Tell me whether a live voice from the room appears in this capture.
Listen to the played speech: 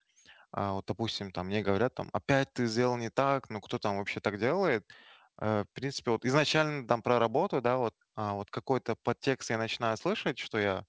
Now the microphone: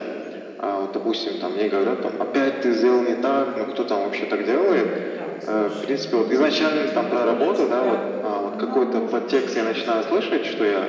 Yes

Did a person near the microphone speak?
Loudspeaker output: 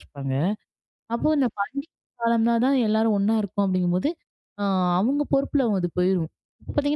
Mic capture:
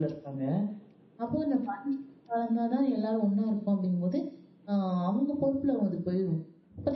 No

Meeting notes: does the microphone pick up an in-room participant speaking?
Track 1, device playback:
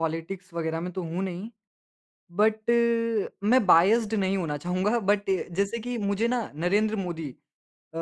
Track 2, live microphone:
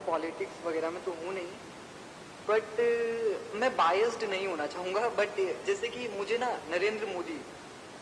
No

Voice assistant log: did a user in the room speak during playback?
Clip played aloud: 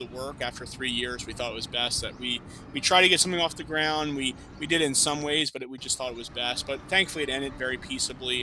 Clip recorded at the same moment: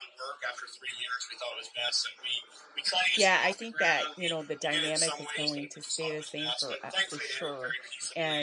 Yes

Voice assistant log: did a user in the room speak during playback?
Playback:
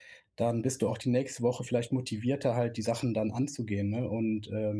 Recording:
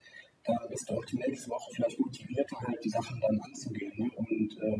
No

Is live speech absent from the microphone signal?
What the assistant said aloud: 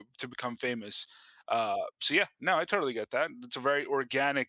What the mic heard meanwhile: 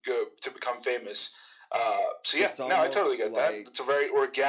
No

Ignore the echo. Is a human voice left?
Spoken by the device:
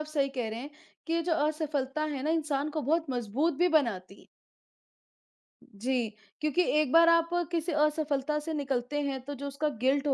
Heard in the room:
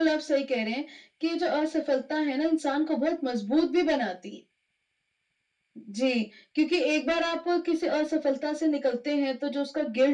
No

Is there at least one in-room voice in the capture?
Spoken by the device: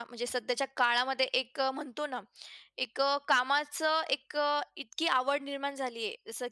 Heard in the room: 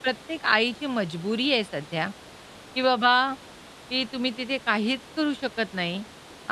Yes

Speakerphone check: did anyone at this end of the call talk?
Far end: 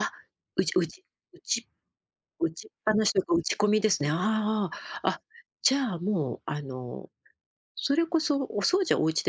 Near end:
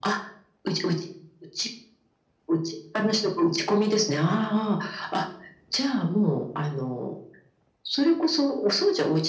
No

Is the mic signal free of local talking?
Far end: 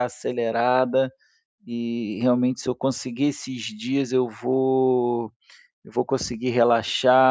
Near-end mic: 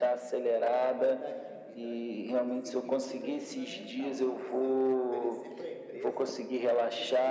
No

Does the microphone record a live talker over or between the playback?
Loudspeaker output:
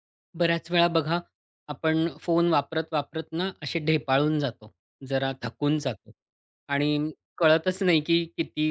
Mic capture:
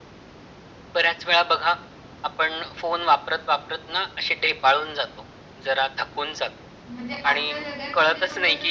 Yes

